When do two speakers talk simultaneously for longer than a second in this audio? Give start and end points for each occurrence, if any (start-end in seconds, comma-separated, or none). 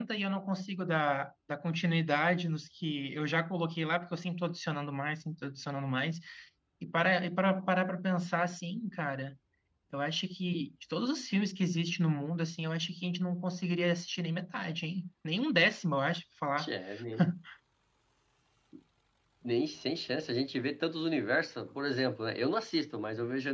none